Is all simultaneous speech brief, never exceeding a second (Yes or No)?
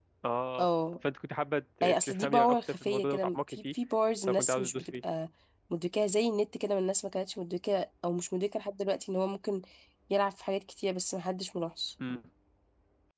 No